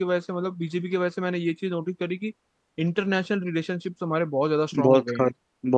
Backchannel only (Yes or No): No